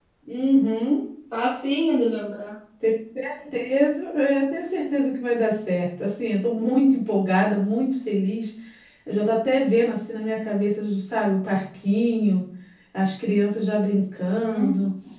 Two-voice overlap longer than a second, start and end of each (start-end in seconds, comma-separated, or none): none